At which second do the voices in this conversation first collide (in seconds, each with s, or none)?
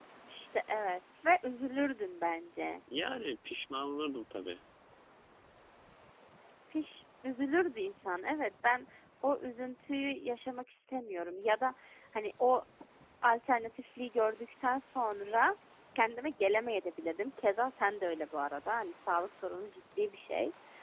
none